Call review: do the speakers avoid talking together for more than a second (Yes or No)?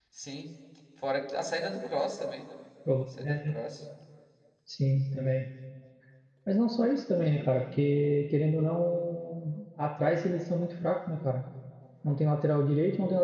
Yes